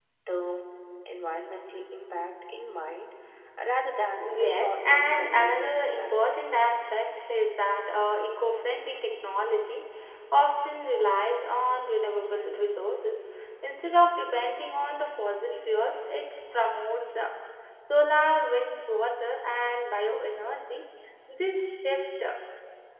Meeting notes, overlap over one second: present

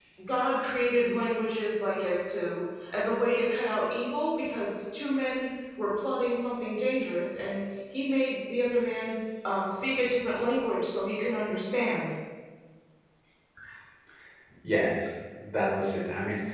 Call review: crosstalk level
none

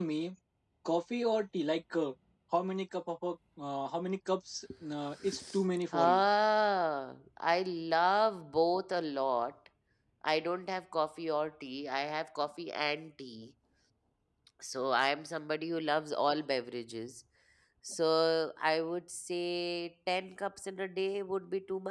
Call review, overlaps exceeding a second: none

